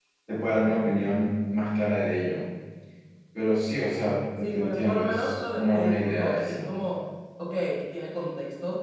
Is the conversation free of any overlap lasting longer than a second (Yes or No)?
No